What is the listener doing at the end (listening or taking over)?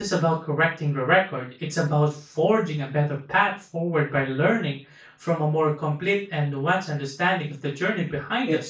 taking over